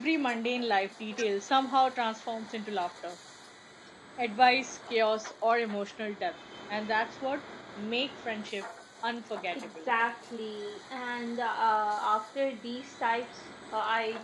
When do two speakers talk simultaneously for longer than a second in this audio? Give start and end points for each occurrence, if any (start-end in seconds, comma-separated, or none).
none